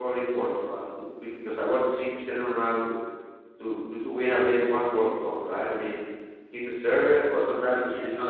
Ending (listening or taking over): listening